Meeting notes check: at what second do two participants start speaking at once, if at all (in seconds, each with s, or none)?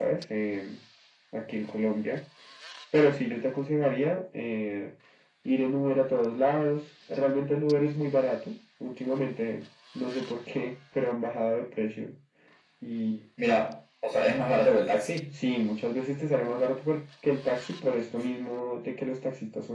none